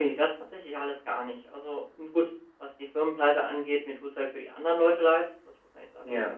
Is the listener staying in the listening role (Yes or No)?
Yes